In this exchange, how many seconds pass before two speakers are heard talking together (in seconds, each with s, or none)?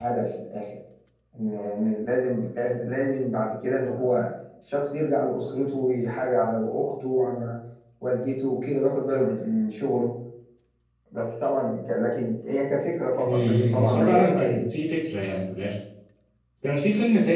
13.2 s